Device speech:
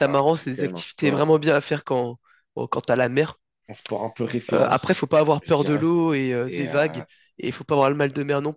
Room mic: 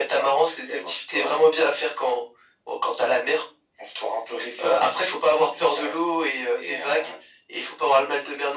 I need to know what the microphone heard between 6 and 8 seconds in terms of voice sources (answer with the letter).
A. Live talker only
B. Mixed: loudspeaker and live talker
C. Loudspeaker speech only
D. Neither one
C